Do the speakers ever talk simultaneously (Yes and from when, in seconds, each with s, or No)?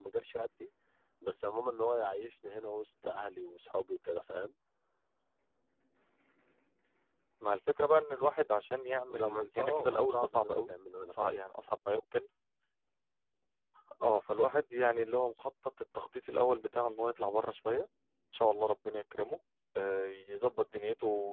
Yes, from 9.1 s